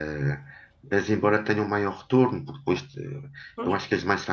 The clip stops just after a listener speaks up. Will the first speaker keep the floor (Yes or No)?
Yes